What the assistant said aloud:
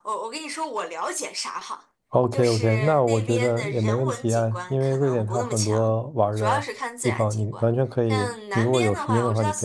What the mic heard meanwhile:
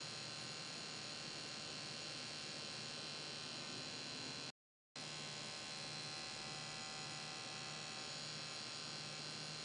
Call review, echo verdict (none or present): none